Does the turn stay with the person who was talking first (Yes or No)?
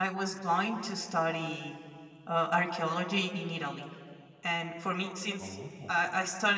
Yes